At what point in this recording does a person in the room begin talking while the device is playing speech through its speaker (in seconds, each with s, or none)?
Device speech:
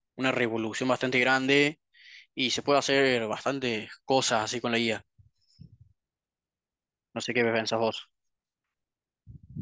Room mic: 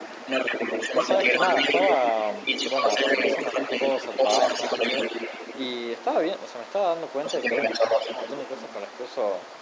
0.9 s